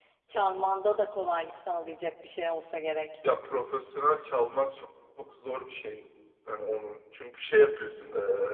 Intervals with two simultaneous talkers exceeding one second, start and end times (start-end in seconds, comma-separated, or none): none